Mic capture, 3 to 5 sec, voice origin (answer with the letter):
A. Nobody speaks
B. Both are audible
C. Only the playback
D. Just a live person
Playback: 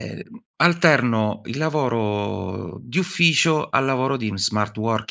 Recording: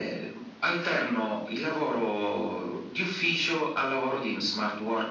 C